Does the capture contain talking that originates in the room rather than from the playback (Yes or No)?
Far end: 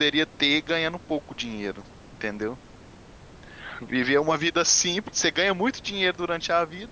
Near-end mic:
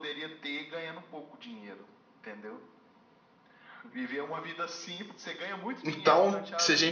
Yes